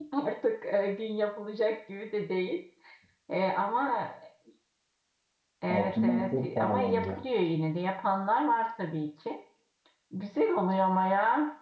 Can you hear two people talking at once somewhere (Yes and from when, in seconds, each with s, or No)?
Yes, from 5.7 s